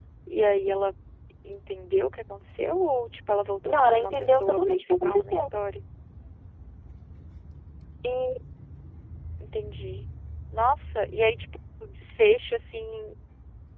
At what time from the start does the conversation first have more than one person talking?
3.6 s

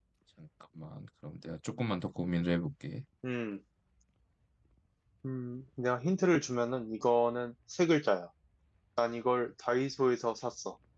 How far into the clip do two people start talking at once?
none

